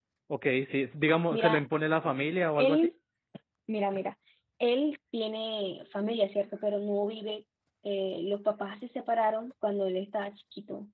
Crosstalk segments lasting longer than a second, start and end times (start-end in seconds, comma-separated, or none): none